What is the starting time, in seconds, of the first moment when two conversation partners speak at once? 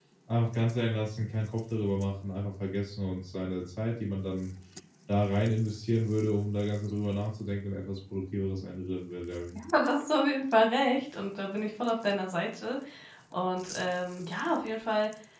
none

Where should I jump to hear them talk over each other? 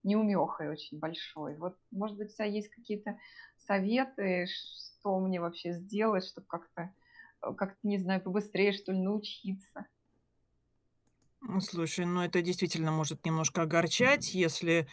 none

